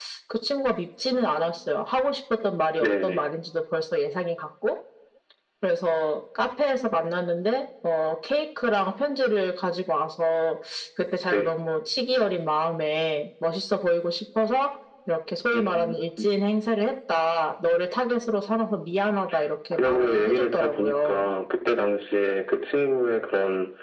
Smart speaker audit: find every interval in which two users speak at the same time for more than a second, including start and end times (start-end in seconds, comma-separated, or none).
19.7-21.3